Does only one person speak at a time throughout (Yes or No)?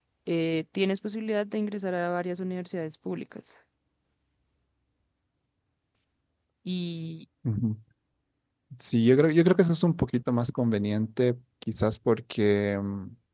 Yes